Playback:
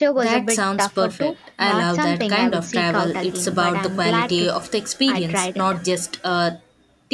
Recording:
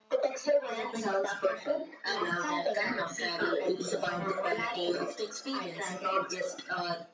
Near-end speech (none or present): none